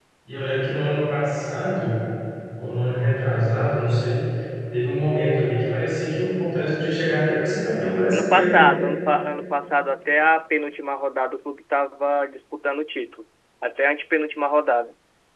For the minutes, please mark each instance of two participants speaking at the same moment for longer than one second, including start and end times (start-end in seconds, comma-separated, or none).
none